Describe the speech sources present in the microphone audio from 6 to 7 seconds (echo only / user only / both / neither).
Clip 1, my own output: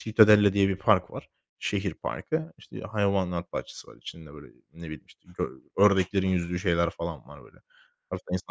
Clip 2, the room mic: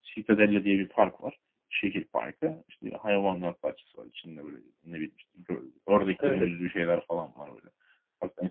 both